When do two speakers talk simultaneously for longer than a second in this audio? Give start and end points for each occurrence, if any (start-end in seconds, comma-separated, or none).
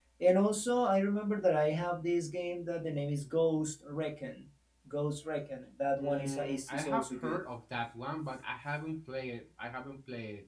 6.0-7.4